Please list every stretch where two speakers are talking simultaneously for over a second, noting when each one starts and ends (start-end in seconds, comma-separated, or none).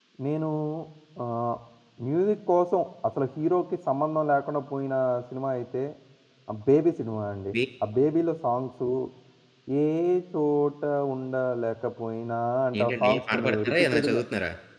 12.8-14.2